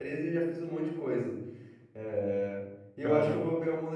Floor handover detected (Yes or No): No